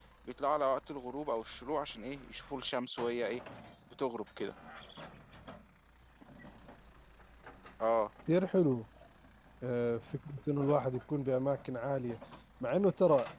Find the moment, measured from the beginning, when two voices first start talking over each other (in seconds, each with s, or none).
none